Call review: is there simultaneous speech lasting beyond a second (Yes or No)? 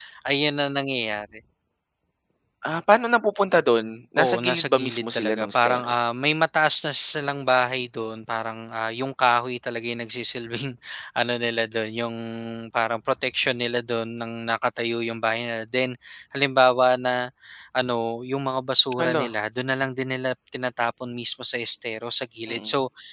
Yes